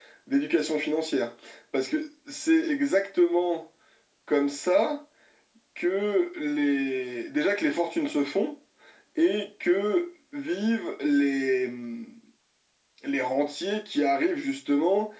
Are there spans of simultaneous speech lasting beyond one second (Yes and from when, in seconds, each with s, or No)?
No